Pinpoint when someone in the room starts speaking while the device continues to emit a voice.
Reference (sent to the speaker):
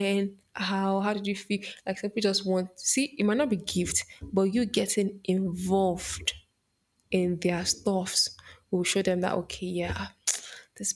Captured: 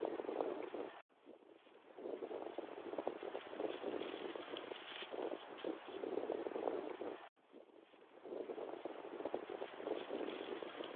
none

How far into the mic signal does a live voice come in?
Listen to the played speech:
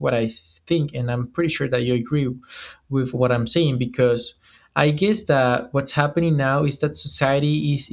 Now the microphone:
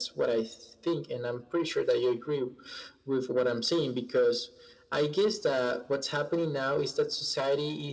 none

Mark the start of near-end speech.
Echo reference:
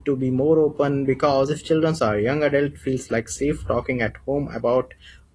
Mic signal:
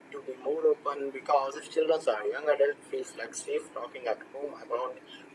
none

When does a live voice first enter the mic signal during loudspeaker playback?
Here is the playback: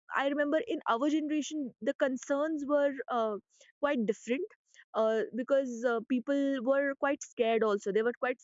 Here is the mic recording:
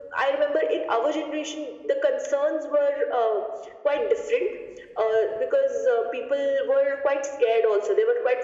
none

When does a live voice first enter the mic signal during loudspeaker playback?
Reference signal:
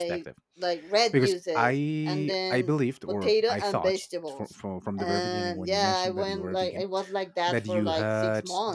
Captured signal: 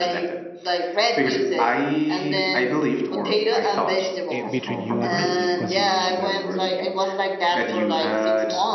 4.3 s

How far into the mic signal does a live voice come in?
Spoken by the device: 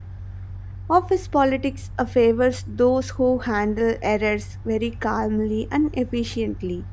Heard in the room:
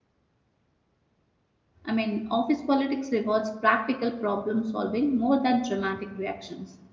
1.8 s

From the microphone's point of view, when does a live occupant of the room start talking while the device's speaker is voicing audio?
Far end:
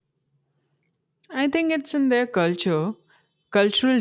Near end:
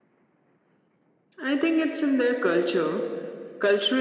none

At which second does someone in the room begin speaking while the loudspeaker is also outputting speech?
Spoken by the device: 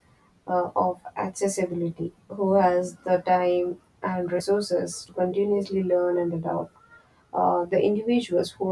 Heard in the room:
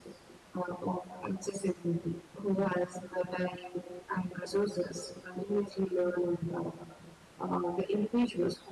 none

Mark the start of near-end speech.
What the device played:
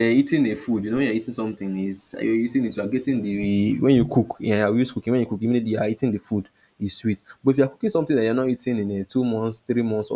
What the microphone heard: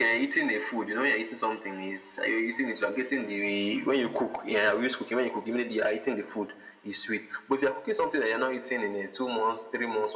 none

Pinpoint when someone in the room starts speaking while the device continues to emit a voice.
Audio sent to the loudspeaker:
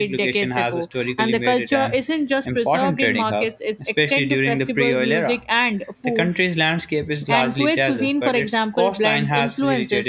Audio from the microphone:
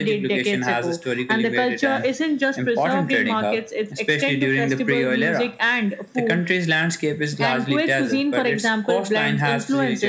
none

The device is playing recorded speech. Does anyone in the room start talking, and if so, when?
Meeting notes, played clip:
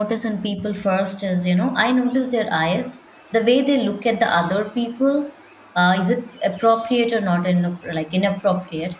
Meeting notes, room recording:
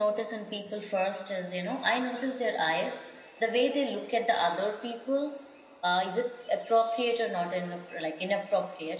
none

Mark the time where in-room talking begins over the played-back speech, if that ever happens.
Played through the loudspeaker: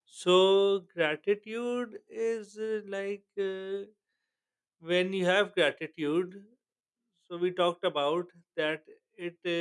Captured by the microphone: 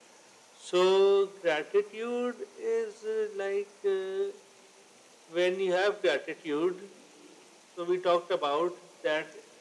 none

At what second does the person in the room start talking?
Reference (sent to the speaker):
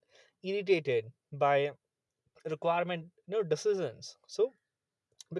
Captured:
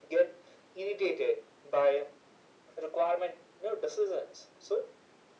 none

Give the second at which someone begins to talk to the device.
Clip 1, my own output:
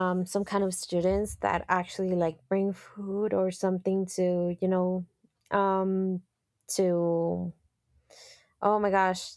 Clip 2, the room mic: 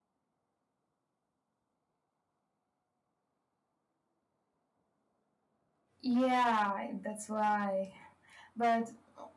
6.0 s

